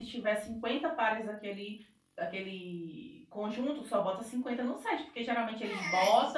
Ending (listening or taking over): taking over